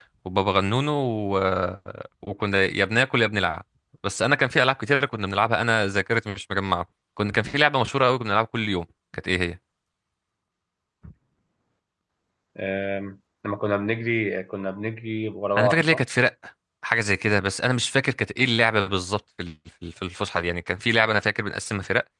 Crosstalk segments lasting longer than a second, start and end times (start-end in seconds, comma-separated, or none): none